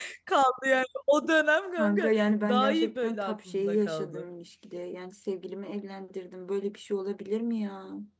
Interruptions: present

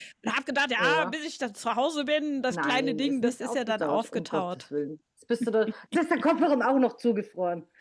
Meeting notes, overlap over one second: present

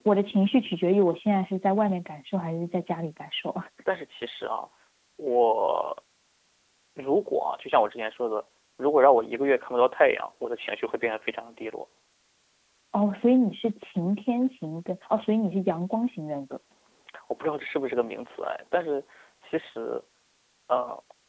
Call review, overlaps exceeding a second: none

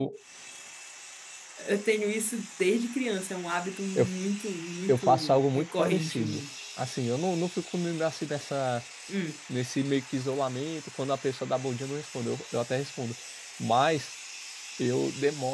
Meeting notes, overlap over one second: present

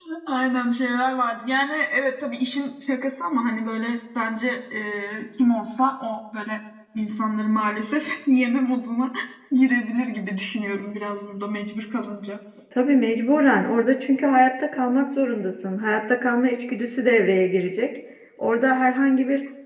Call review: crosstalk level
none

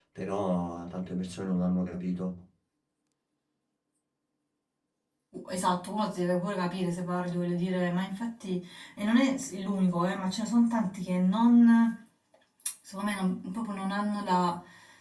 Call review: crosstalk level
none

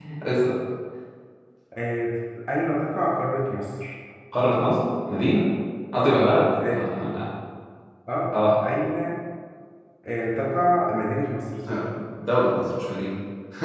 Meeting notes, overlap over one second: none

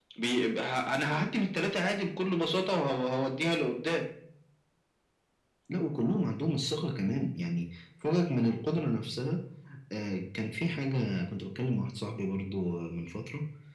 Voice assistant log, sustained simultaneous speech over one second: none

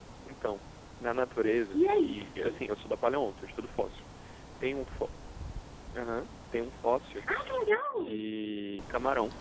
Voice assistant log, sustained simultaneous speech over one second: present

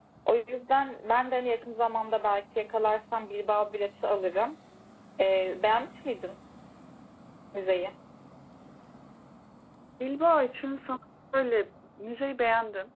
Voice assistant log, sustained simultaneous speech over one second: none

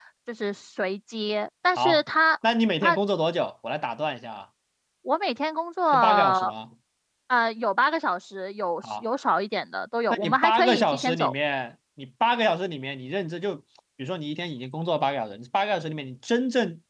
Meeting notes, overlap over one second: present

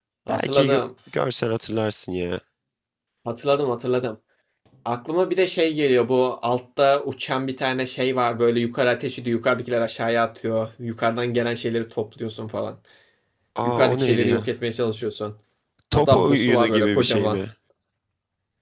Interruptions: present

